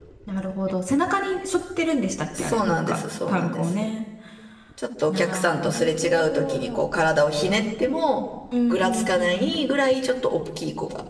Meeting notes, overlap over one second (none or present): present